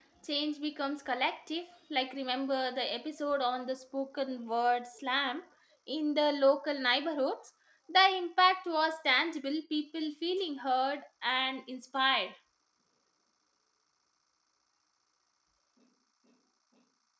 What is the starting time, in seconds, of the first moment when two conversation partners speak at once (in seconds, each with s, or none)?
none